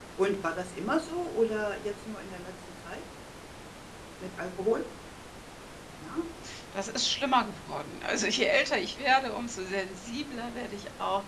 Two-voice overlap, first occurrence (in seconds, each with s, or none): none